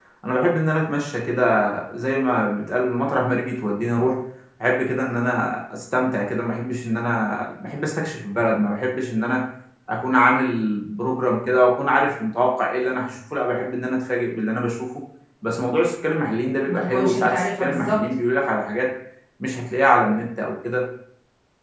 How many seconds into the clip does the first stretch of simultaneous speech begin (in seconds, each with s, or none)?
16.6 s